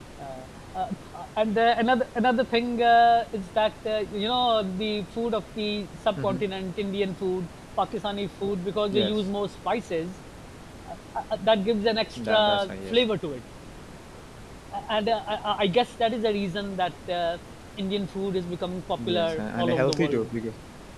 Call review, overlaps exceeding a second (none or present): present